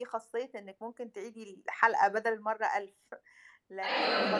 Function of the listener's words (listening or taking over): taking over